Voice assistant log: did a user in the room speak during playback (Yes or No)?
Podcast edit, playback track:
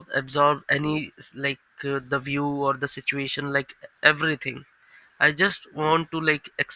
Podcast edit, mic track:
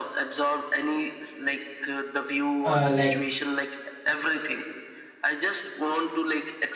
Yes